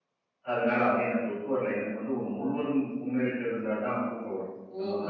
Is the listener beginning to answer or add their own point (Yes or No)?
Yes